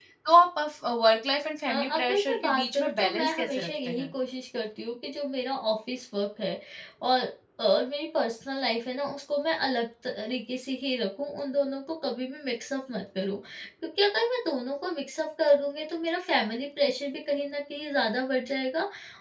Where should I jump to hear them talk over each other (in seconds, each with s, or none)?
1.6 s